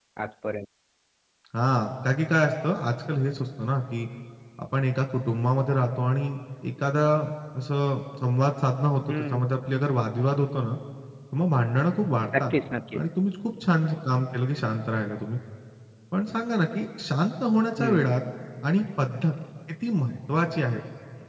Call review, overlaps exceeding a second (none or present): none